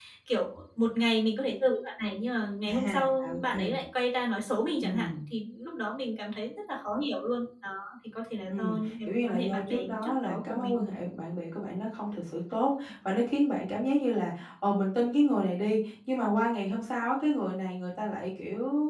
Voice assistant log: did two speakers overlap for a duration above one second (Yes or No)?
Yes